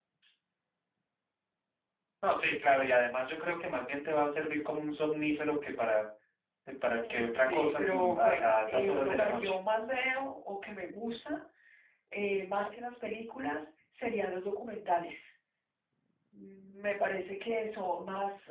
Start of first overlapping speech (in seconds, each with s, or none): 7.1 s